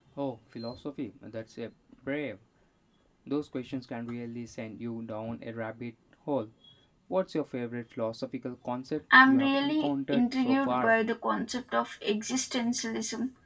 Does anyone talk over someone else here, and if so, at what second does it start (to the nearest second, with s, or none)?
9 s